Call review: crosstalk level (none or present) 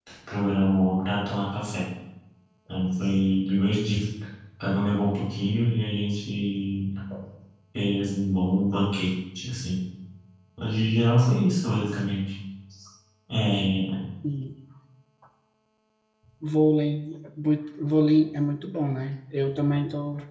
none